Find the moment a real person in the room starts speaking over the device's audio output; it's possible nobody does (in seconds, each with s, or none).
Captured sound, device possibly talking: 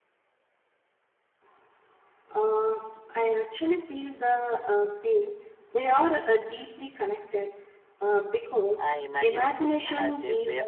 8.8 s